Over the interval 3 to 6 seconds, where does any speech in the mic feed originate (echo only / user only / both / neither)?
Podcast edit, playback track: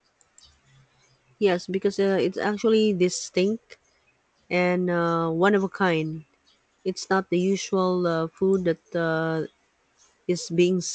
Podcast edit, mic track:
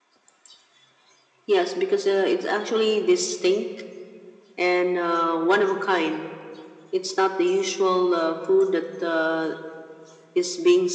echo only